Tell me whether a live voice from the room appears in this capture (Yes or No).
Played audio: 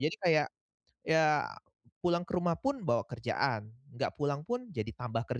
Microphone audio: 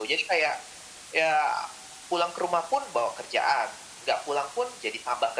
No